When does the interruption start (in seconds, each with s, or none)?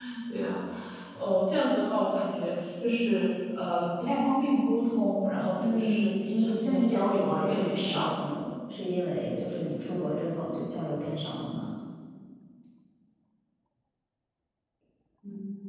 5.6 s